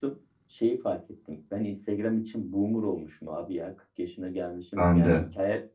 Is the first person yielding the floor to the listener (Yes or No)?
No